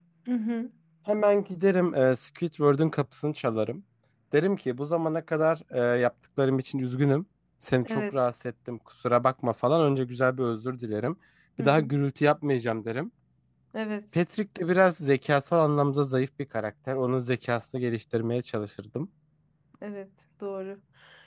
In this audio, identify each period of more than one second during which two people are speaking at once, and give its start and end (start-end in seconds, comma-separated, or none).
none